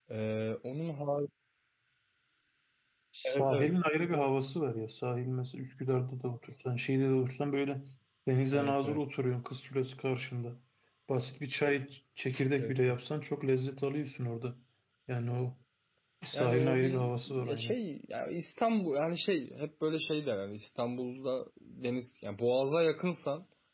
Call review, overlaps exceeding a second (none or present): present